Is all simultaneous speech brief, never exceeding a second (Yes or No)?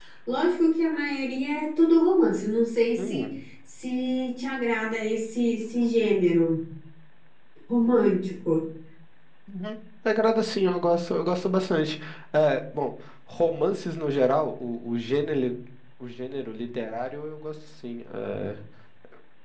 Yes